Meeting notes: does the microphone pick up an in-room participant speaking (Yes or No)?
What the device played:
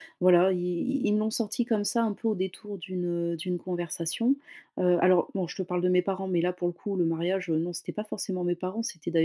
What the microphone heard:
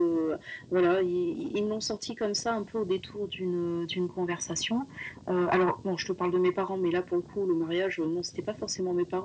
No